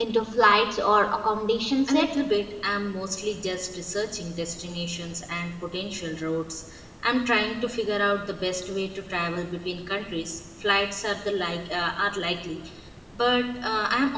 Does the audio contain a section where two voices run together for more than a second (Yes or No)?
No